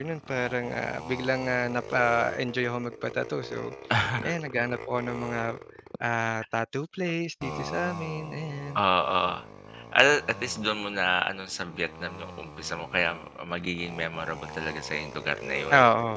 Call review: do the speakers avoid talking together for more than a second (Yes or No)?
Yes